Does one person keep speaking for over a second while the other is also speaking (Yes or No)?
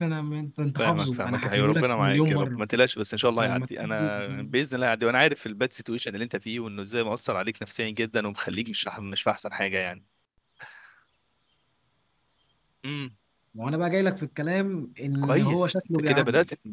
Yes